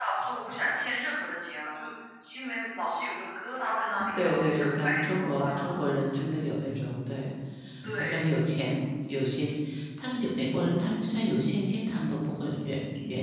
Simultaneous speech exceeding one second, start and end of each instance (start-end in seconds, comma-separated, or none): 4.2-5.7